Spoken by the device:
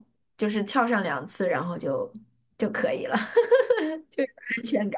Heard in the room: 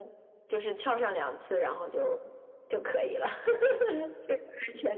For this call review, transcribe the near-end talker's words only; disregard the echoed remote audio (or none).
none